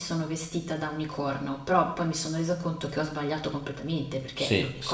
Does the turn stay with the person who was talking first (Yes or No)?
No